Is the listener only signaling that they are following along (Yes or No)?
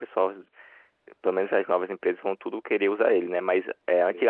Yes